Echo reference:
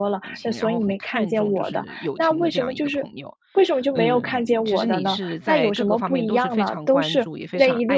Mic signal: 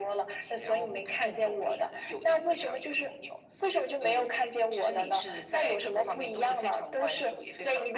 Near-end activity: none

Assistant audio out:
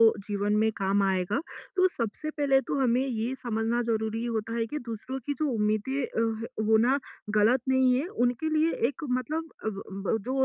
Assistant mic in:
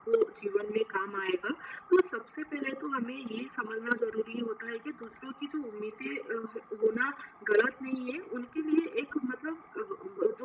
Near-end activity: none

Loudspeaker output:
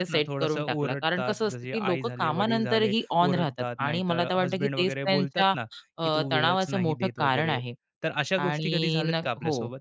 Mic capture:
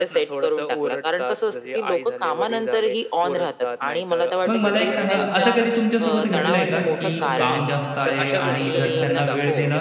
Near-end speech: present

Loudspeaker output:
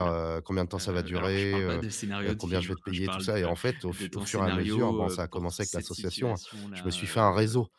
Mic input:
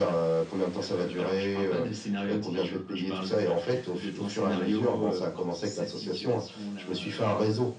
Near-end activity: none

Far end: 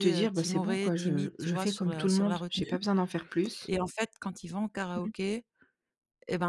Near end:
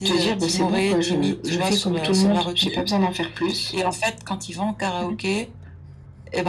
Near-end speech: none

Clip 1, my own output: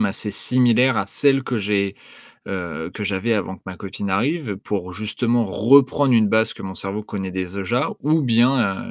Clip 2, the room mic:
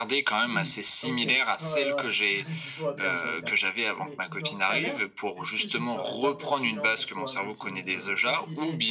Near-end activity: present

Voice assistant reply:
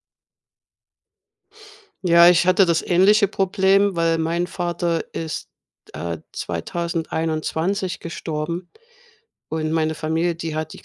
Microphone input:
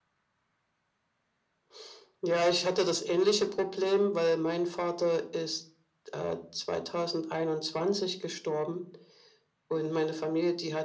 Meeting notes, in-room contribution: none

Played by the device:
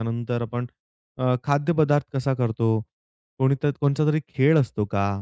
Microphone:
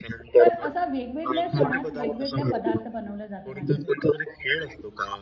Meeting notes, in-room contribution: present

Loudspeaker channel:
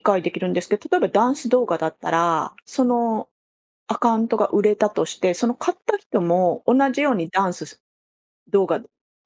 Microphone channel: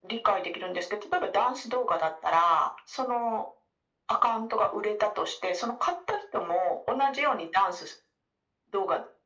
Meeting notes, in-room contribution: none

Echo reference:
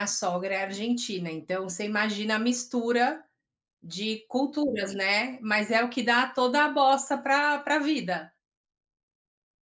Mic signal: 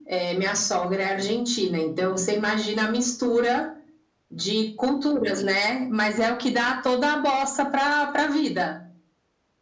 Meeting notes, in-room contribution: none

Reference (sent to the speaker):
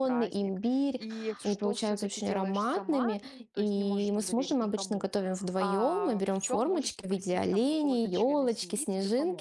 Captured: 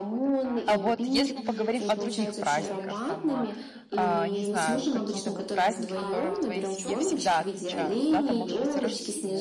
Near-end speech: present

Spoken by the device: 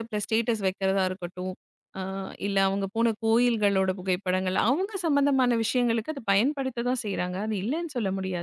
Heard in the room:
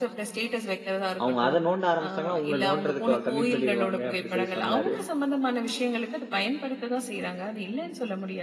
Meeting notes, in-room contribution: present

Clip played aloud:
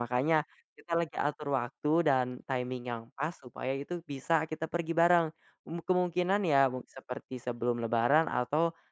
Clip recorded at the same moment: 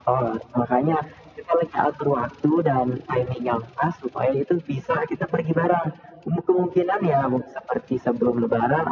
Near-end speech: none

